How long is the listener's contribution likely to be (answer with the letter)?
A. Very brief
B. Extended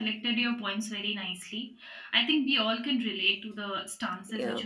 B